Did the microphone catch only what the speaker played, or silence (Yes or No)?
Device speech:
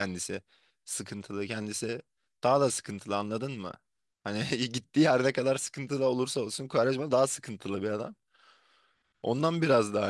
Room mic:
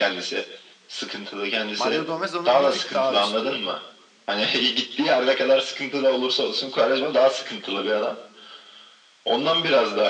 No